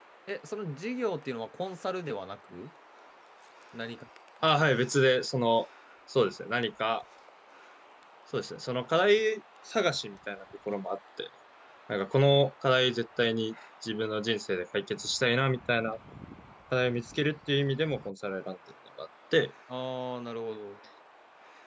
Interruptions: none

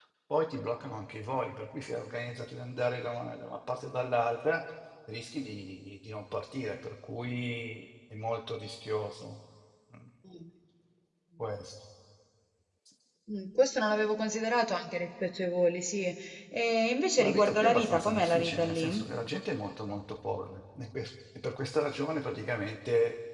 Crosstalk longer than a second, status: present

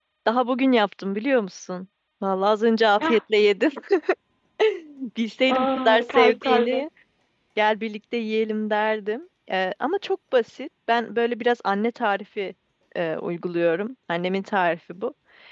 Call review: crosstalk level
present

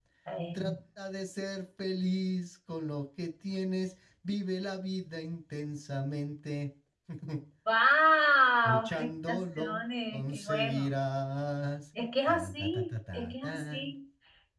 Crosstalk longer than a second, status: present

